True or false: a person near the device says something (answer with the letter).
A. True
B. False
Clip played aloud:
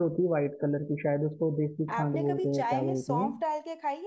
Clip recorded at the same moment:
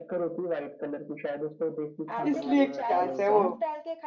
A